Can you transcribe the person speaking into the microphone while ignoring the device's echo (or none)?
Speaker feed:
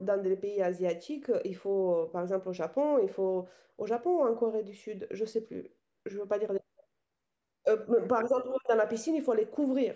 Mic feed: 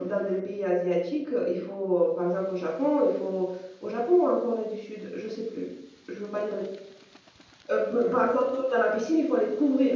none